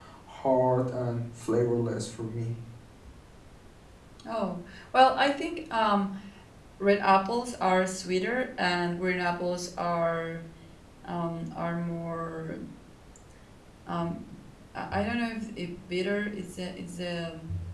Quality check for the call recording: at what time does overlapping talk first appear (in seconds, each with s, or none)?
none